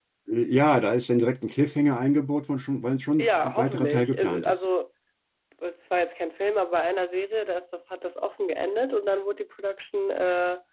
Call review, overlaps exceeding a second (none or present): present